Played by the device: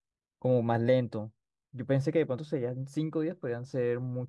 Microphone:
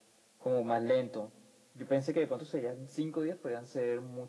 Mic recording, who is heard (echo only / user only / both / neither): echo only